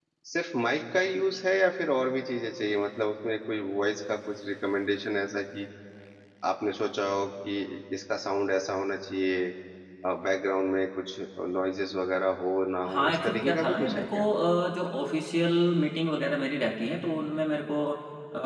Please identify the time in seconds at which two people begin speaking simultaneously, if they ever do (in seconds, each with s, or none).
12.8 s